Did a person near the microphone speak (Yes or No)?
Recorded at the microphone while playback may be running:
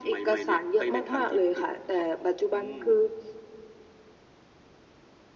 No